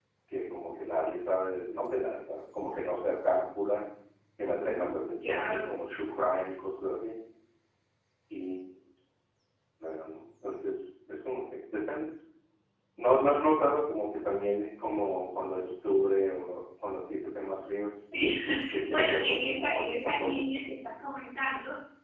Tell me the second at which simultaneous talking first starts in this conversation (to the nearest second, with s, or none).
4 s